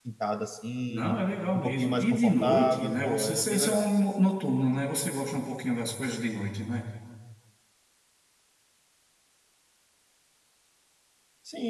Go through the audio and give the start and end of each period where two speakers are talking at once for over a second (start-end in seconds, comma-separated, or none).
1.5-3.9